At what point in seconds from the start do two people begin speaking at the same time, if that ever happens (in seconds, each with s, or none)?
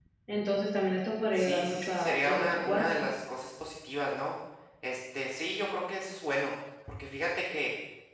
1.3 s